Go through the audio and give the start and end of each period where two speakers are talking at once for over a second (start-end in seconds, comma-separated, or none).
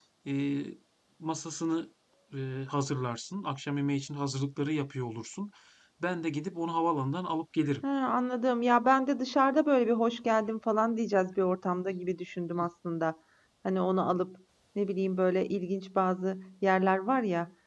none